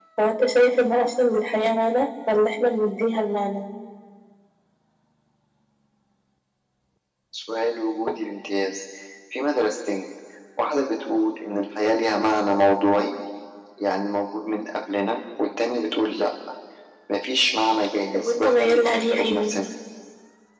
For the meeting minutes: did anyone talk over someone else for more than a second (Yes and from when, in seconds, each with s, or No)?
Yes, from 18.1 s